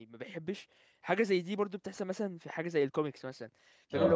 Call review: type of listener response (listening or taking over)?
listening